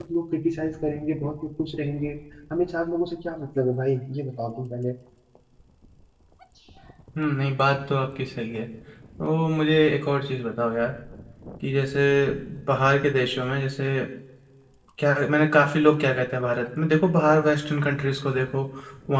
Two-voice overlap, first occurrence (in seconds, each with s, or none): none